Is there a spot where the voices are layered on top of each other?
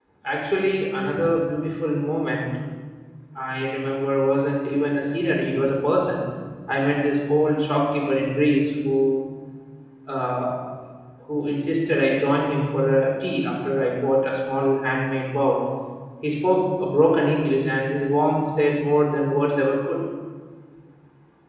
No

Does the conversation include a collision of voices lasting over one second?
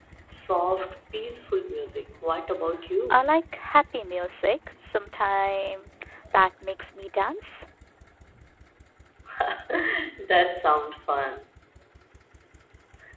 No

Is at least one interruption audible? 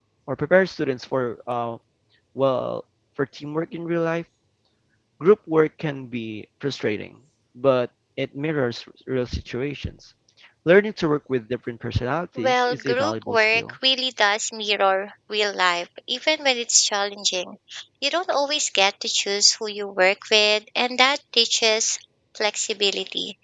Yes, from 12.4 s

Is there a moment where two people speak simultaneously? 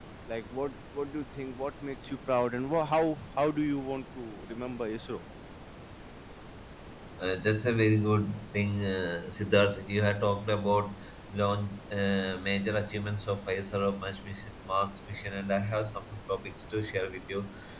No

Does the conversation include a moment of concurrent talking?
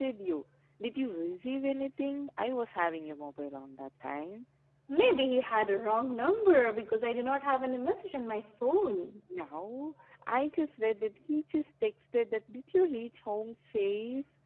No

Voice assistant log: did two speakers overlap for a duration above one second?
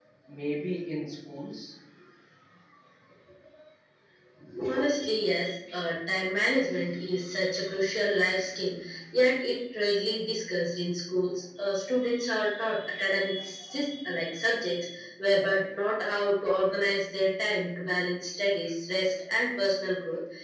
No

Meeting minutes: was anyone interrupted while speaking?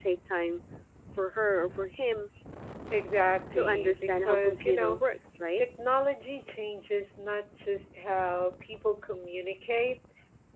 Yes, from 3.5 s

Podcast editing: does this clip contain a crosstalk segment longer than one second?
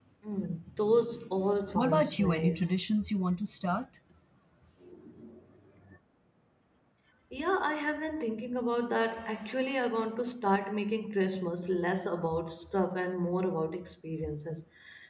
Yes, from 1.8 s

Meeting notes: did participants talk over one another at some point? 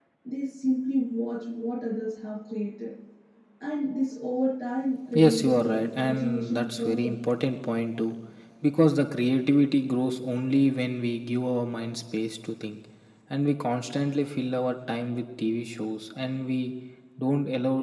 Yes, from 5.1 s

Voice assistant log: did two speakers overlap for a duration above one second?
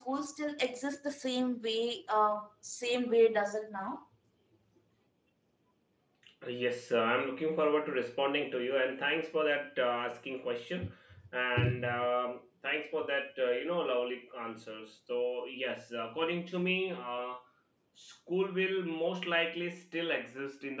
No

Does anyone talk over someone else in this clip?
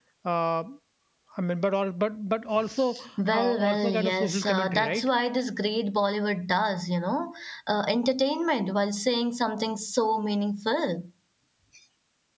Yes, from 3.3 s

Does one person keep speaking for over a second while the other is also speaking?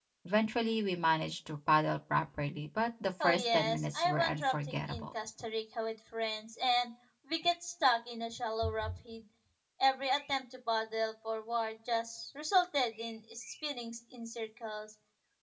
Yes, from 3.2 s

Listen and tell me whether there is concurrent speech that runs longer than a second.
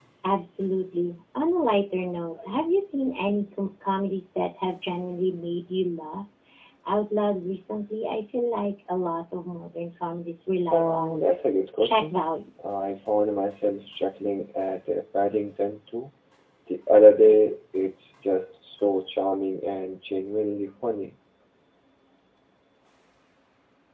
No

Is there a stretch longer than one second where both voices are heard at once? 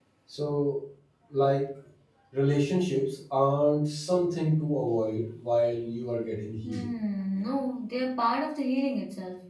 No

